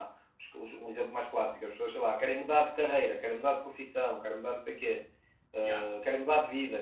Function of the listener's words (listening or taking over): listening